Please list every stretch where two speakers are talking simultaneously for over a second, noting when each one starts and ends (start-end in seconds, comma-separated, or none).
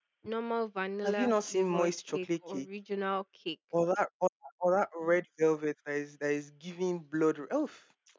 1.0-2.6